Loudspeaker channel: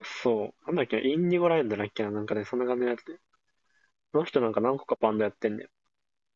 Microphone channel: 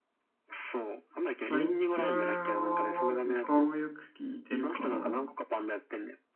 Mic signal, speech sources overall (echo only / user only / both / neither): both